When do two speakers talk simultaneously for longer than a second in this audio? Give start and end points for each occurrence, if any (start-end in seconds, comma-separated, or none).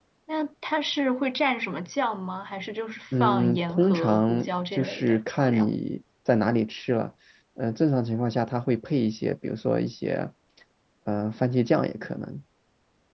3.2-5.7